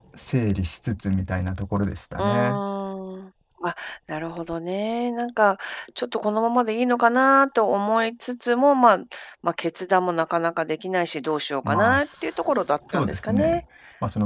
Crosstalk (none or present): present